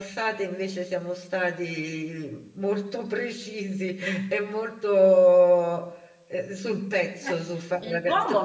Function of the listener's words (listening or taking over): taking over